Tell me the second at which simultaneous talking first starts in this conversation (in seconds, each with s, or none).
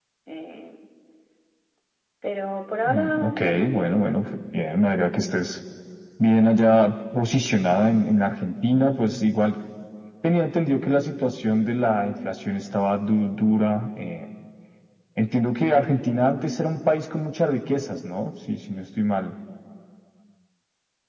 2.9 s